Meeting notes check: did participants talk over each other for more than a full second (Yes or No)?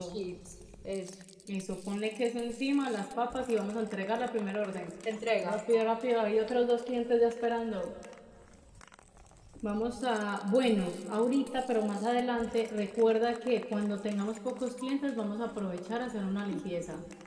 No